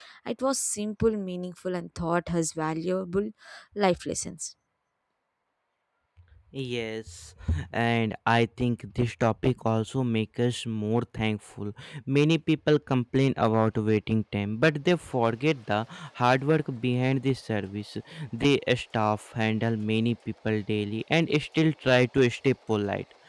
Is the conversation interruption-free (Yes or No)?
Yes